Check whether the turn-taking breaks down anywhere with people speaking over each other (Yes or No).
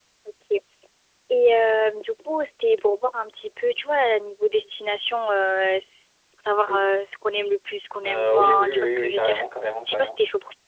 Yes